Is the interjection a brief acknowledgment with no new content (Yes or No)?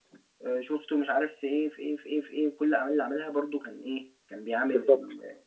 Yes